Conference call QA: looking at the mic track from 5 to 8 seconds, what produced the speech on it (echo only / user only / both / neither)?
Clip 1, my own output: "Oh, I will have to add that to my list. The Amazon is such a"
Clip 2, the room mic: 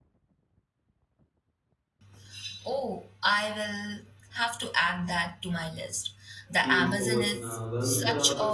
both